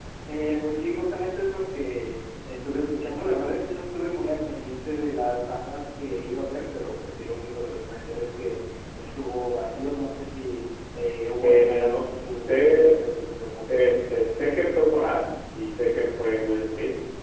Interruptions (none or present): present